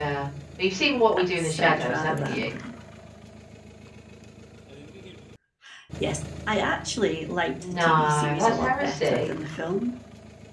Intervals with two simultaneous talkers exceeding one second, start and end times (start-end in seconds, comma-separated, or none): 1.1-2.5, 7.6-9.3